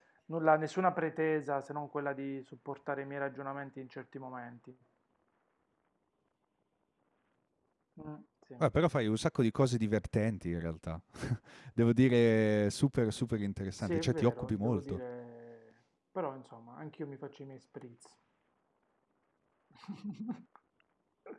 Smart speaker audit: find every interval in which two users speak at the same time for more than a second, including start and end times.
13.8-15.0

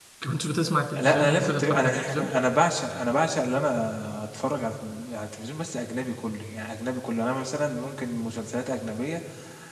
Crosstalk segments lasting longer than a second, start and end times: 1.0-2.3

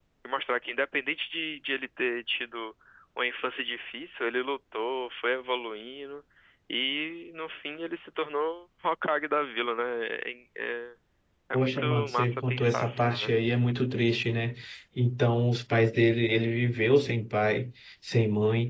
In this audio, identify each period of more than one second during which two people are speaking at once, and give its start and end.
11.5-13.3

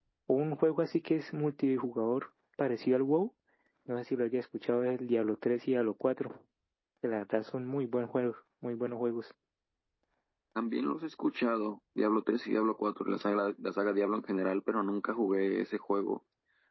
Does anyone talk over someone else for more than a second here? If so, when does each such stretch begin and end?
none

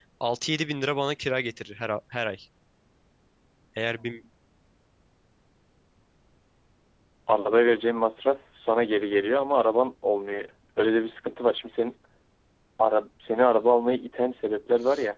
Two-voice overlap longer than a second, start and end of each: none

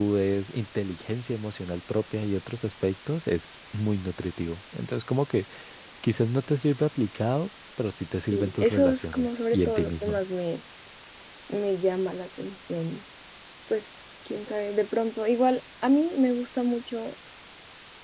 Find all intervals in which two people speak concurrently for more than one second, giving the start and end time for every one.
8.3-10.2

